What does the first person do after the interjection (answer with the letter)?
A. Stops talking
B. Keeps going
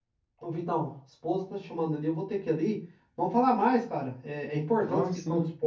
B